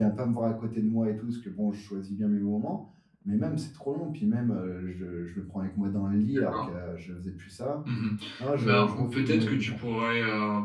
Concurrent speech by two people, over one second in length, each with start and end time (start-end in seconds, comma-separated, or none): 8.6-9.8